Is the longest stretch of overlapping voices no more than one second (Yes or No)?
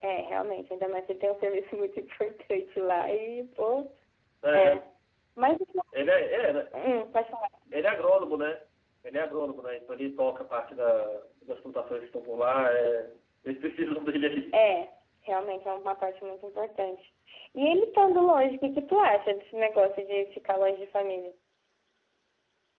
Yes